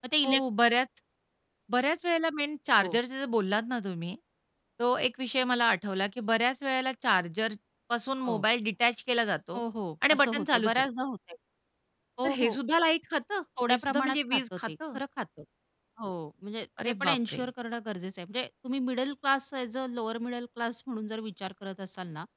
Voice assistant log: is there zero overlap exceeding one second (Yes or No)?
No